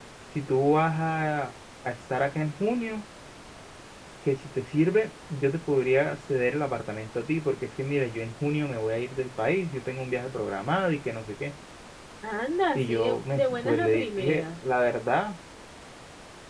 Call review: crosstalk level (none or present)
present